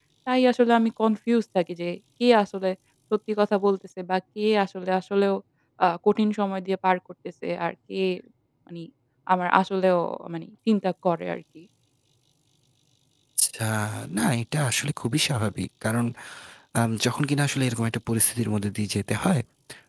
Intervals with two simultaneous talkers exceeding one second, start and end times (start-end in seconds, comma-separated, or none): none